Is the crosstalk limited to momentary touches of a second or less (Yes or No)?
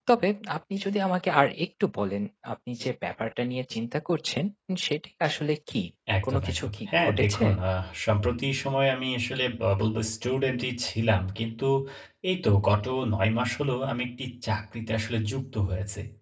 No